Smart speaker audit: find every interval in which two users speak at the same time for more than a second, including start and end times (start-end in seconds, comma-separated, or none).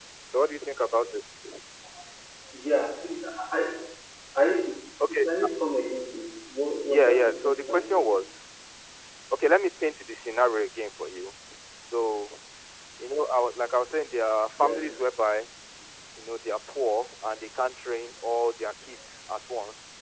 6.9-8.1